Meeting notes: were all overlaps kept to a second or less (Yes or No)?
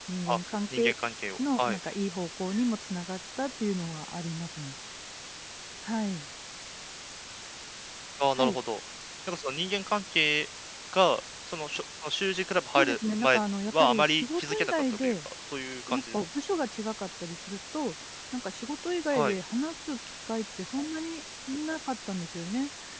No